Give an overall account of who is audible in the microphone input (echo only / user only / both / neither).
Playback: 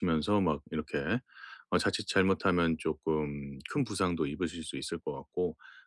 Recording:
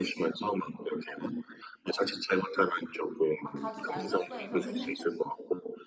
both